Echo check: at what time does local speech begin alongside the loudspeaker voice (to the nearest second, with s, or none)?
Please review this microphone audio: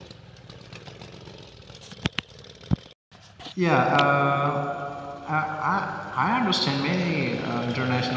4 s